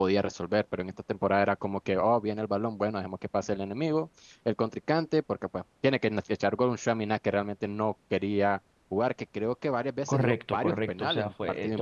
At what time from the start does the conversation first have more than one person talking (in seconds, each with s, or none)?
10.1 s